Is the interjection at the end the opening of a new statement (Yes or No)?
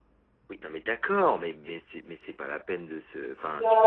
Yes